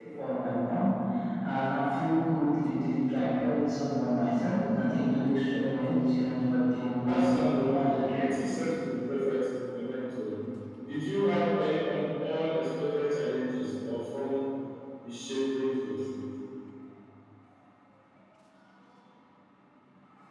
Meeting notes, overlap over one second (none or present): present